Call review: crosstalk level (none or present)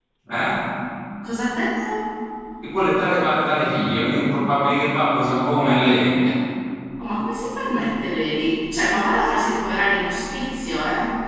none